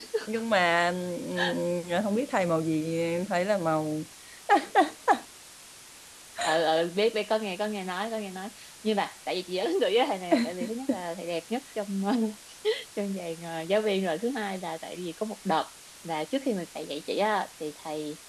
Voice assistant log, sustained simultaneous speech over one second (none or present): none